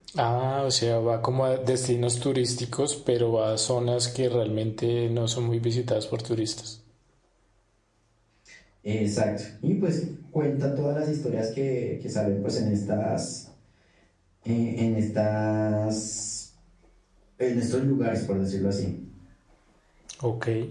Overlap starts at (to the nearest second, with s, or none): none